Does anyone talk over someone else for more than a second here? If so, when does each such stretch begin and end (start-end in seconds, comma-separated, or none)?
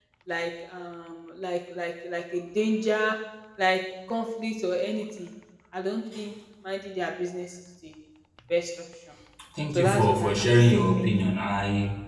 9.8-11.3